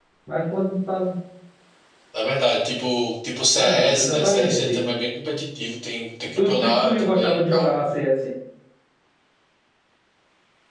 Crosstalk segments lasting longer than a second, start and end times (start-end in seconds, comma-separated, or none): 3.5-4.9, 6.5-7.7